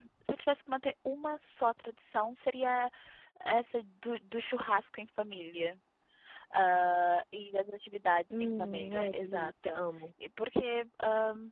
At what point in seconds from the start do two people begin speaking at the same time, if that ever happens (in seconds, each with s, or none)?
8.3 s